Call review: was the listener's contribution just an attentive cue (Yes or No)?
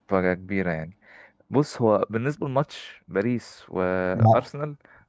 Yes